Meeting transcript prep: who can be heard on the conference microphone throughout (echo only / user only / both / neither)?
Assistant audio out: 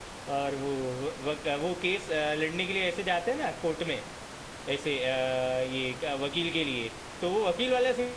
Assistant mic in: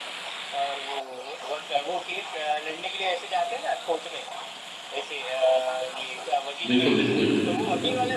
both